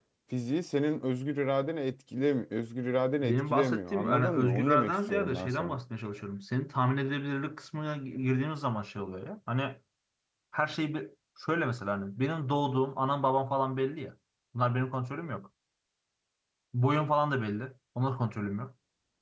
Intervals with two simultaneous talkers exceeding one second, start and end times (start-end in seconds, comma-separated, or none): 3.2-5.8